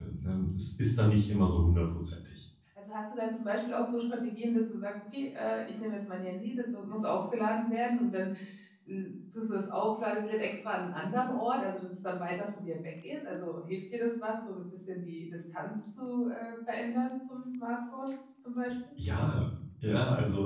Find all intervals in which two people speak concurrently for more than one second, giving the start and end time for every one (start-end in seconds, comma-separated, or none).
none